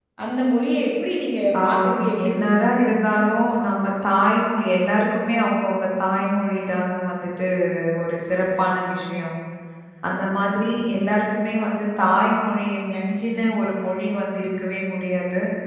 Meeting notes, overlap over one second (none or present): present